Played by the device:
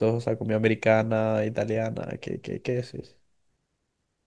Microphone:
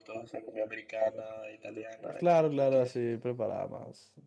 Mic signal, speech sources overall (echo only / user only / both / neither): both